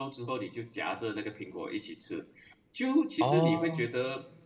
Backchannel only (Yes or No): Yes